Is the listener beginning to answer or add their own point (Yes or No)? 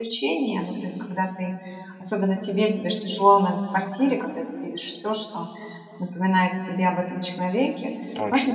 No